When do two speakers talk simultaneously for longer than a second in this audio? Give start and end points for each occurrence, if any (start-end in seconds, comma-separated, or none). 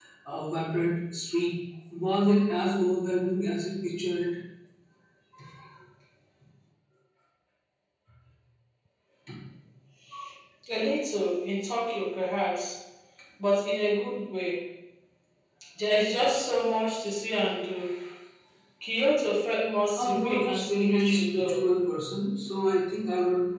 20.0-21.7